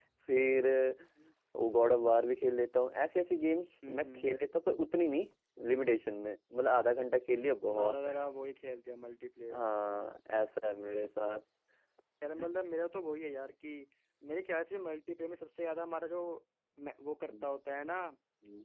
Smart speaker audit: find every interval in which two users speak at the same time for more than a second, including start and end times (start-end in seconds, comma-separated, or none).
none